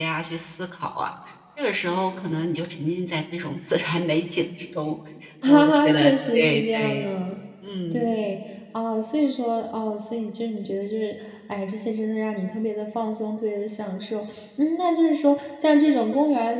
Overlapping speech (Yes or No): Yes